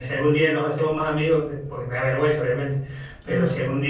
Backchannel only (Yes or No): Yes